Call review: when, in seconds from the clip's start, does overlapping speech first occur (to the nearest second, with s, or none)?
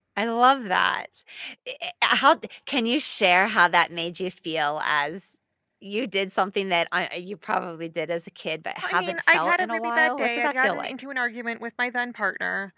9 s